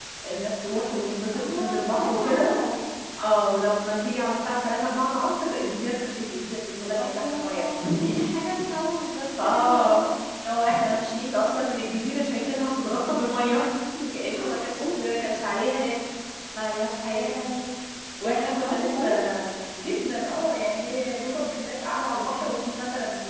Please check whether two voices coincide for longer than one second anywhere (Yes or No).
Yes